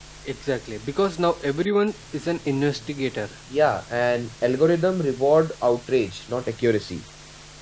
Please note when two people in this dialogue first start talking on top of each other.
none

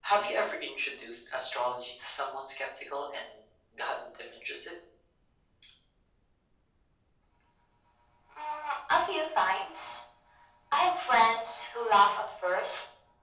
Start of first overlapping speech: none

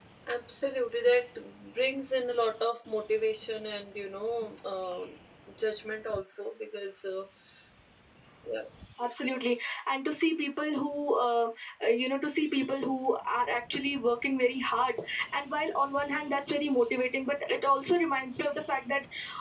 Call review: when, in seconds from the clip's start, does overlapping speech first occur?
none

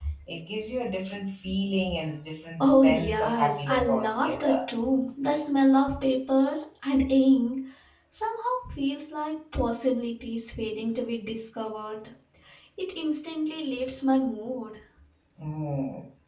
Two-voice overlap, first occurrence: 2.6 s

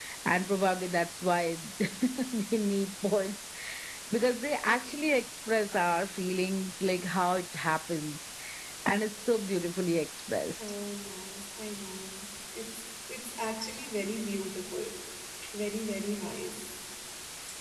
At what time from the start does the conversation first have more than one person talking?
none

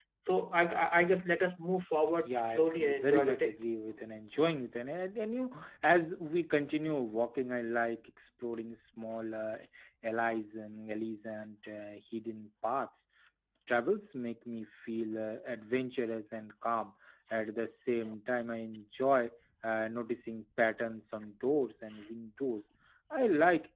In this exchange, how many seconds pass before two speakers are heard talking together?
2.1 s

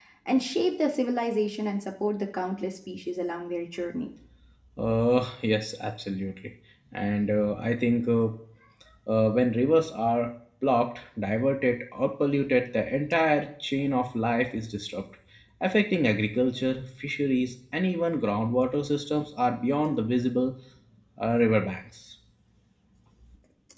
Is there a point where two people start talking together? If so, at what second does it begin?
none

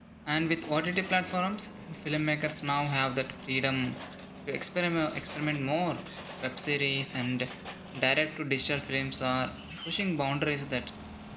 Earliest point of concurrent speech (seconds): none

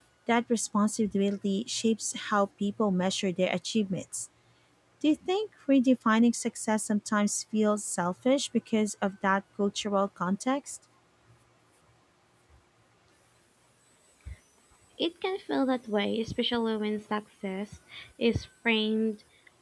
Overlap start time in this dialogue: none

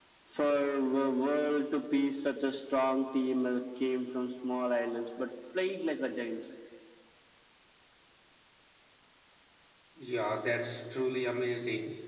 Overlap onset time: none

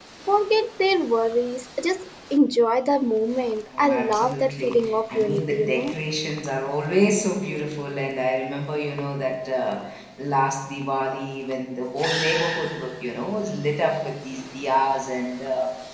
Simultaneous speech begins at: 3.7 s

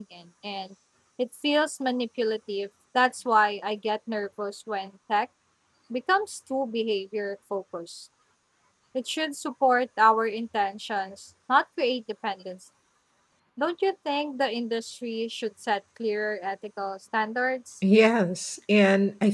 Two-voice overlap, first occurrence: none

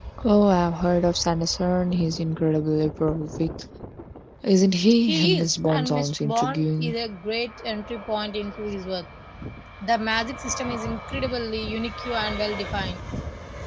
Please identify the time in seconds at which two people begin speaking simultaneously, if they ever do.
5.0 s

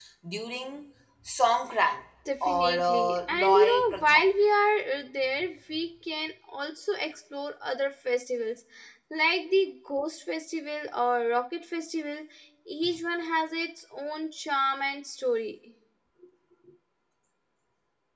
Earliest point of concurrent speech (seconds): 2.5 s

